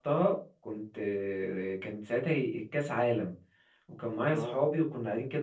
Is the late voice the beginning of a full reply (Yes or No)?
No